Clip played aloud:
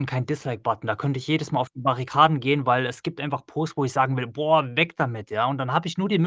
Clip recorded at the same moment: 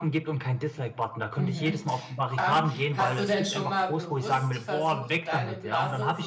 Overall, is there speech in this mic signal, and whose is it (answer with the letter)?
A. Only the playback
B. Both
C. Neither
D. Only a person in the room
B